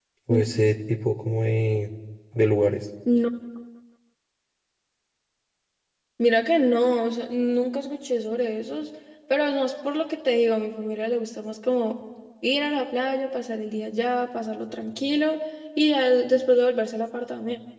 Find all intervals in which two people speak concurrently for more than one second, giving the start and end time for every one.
none

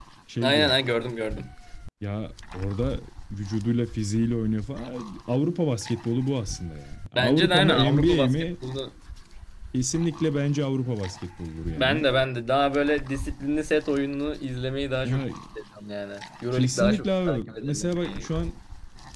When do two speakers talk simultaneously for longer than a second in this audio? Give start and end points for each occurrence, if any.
7.2-8.4, 16.5-18.3

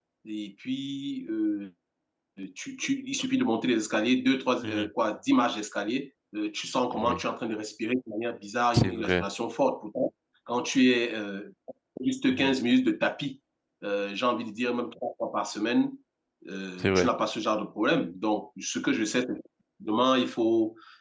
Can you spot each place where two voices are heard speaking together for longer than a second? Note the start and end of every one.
none

